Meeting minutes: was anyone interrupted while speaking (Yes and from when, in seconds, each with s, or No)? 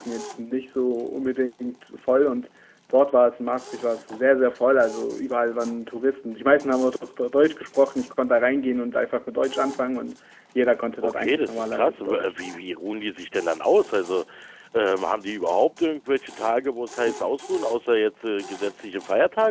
Yes, from 11.0 s